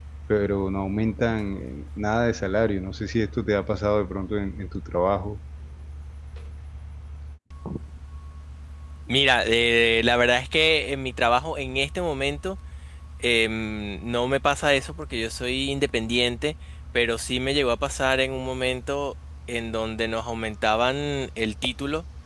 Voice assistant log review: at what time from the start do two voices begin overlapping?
none

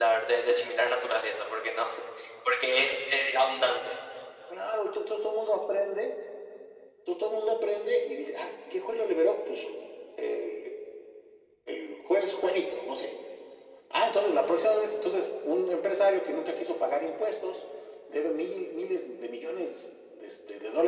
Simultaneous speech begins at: none

